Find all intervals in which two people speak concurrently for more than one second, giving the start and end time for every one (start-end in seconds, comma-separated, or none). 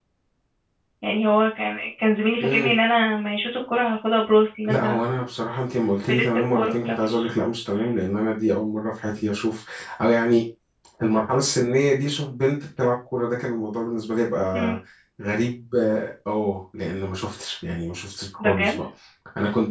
6.1-7.3